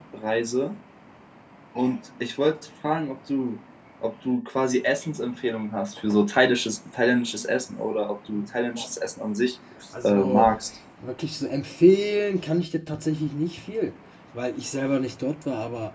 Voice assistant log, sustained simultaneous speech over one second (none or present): none